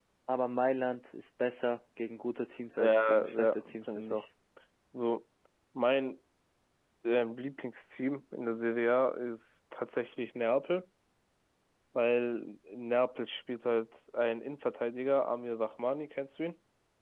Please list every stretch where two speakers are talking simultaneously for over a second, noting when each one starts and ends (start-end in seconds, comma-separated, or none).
2.8-4.2